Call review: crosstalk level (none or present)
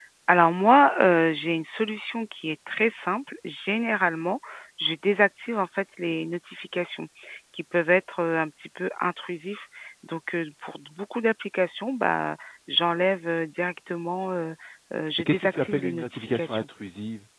present